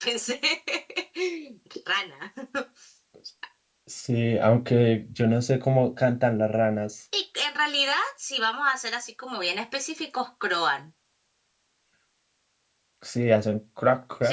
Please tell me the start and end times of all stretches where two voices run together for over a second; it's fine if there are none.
none

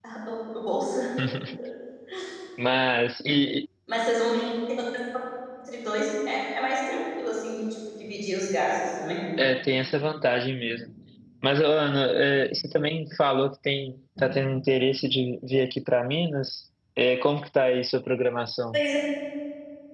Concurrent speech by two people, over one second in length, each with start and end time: none

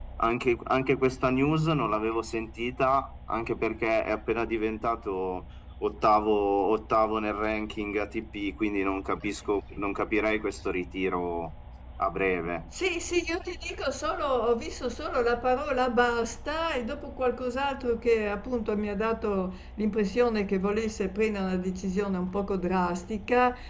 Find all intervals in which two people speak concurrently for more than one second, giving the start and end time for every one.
none

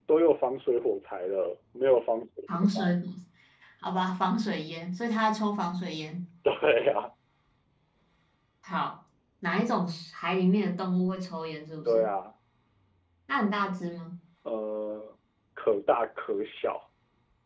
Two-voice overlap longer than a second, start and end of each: none

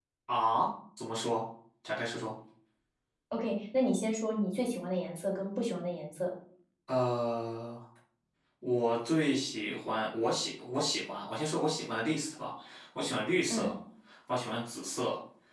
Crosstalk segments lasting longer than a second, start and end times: none

